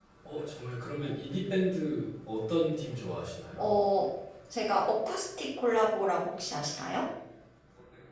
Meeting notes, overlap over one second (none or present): none